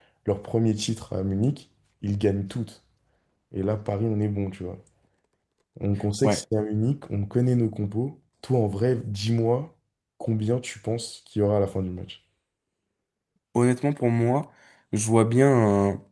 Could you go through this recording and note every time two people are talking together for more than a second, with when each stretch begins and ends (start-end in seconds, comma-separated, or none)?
none